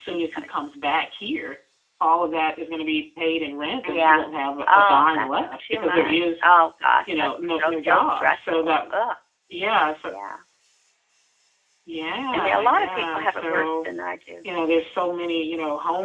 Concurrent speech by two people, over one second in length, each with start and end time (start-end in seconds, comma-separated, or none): 4.7-6.5, 7.1-8.8, 12.3-13.9